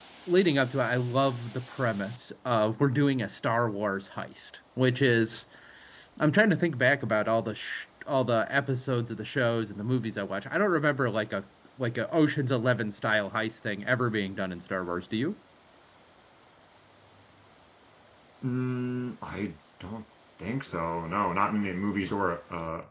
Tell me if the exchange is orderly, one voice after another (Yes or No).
Yes